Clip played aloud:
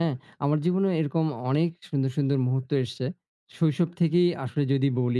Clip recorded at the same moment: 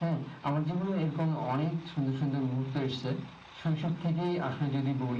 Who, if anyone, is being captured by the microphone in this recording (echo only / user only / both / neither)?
echo only